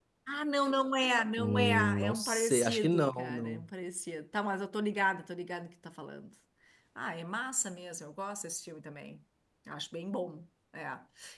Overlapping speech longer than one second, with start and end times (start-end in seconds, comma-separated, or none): 1.4-3.6